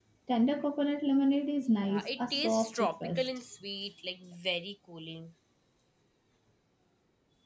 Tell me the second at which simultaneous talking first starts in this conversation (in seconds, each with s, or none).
1.8 s